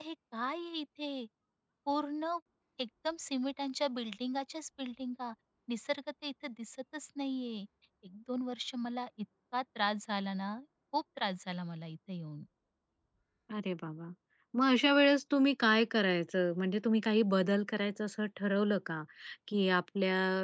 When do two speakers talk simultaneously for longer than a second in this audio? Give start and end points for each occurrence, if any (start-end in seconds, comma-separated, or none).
none